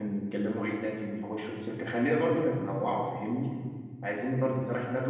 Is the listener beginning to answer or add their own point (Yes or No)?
No